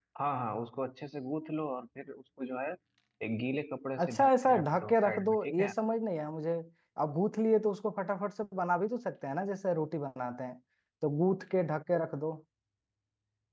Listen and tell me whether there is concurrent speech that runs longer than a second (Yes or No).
Yes